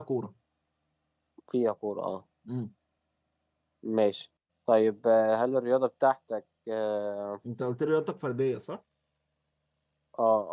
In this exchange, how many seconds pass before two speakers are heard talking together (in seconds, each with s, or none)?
none